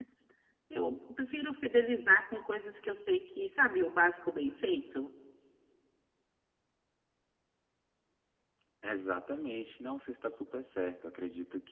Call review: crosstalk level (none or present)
none